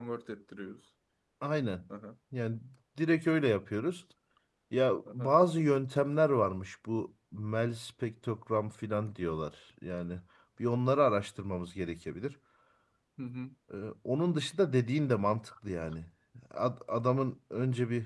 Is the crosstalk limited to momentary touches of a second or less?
Yes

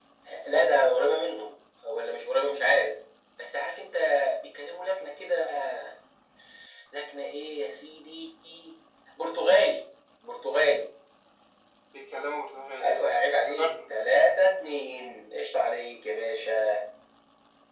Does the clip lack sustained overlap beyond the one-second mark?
No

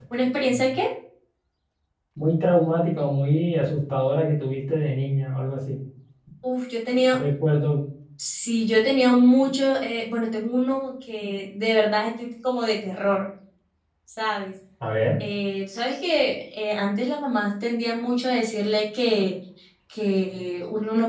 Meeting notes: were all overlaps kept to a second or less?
Yes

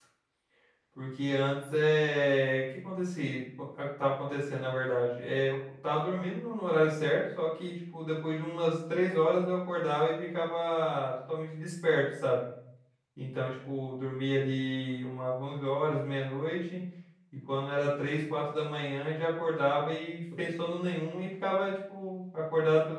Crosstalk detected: No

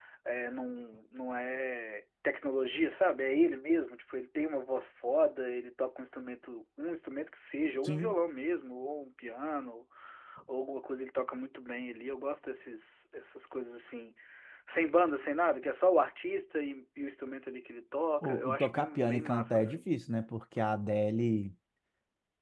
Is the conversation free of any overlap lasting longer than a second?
No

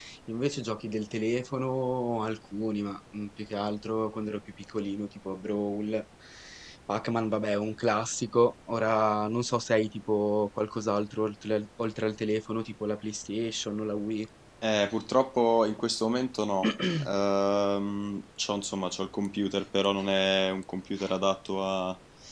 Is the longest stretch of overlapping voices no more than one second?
Yes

